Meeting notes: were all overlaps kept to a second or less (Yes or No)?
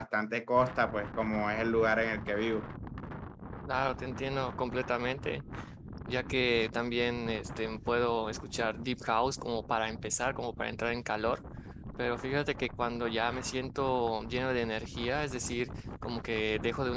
Yes